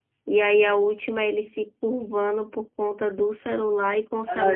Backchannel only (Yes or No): No